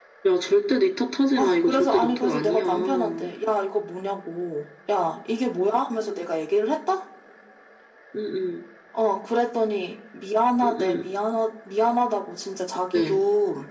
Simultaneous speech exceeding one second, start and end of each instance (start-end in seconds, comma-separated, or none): 1.4-3.3